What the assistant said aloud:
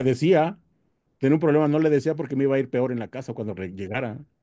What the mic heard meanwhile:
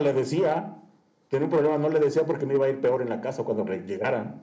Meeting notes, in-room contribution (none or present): none